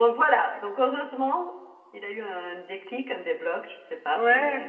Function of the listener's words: taking over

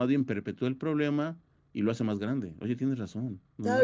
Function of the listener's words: taking over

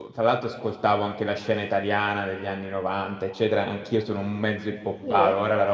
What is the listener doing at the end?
listening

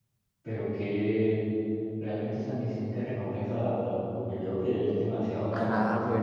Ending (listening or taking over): taking over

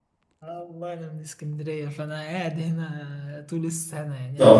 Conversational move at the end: taking over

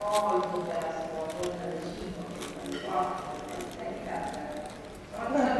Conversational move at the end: listening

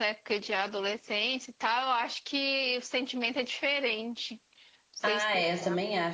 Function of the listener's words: taking over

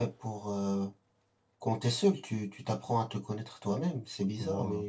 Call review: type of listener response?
listening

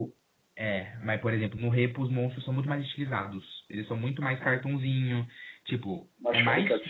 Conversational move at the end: listening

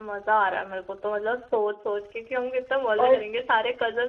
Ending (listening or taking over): listening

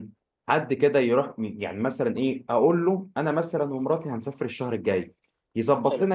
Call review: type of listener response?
listening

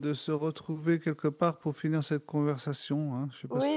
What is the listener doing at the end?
taking over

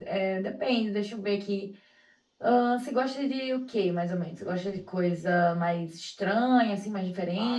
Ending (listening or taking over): taking over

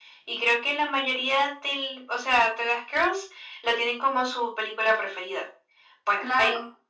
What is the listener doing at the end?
taking over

